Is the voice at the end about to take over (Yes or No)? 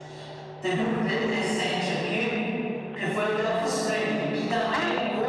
No